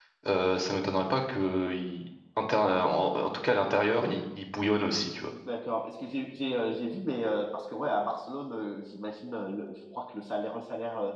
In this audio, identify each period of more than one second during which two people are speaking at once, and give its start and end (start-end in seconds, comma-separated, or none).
none